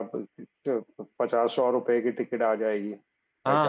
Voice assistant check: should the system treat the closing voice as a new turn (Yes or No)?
Yes